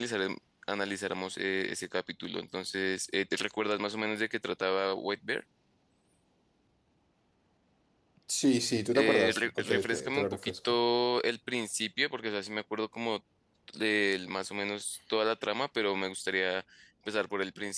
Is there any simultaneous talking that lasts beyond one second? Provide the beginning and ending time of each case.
8.9-10.8

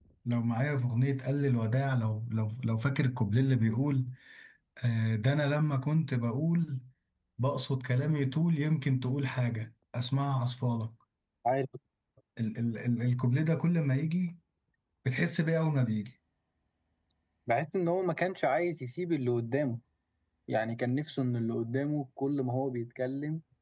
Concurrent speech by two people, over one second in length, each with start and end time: none

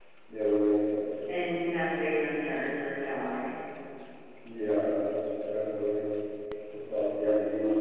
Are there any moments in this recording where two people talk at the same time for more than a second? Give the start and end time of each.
none

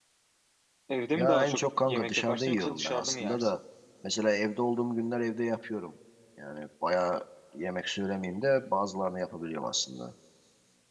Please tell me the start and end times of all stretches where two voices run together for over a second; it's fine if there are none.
1.1-3.5

